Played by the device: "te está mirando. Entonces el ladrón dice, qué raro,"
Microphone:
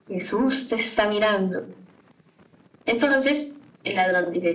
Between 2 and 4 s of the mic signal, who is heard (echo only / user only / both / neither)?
echo only